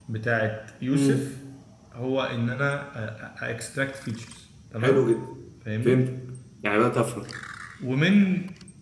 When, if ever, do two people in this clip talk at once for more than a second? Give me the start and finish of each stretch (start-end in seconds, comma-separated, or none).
none